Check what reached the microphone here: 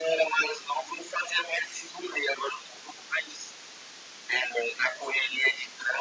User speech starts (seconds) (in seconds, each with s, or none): none